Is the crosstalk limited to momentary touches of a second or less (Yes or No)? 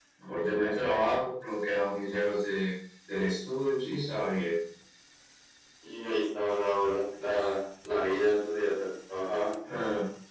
Yes